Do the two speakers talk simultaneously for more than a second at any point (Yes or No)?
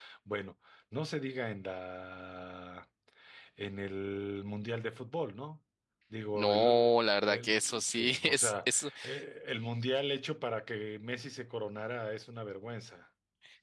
Yes